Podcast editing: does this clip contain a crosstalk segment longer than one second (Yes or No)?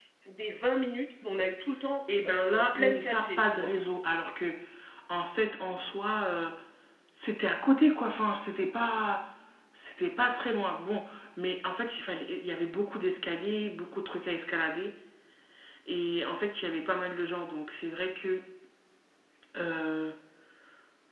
Yes